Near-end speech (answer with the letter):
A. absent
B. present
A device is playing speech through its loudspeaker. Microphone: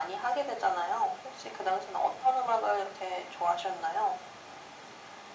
A